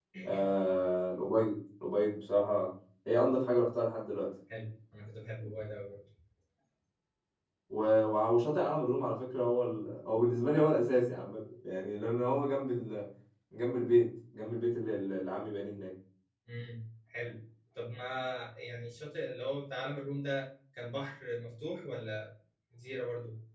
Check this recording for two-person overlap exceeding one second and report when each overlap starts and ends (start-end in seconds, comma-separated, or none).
none